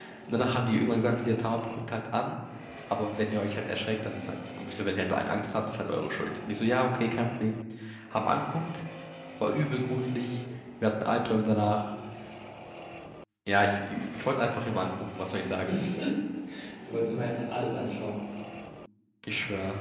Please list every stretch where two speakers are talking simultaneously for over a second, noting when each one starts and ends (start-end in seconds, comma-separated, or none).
none